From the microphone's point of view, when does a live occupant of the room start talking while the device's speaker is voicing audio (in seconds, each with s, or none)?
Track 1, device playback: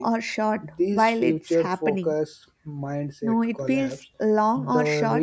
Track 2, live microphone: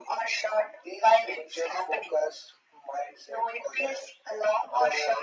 none